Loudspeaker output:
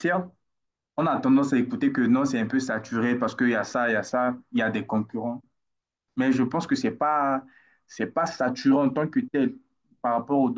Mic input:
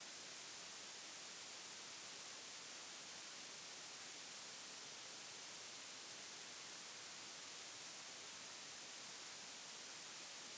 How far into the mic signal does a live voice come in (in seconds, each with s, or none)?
none